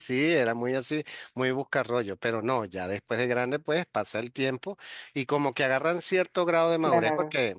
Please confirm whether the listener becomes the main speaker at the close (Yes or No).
No